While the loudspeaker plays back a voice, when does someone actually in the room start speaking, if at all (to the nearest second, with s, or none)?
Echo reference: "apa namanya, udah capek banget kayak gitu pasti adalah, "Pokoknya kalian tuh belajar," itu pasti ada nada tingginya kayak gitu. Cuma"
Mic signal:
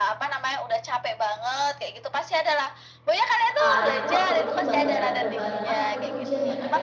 4 s